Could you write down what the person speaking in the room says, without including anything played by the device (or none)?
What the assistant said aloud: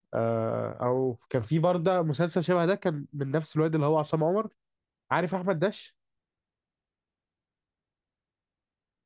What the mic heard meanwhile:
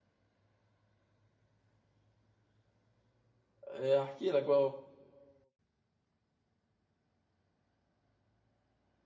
آه، هحكي لك بقى أهو.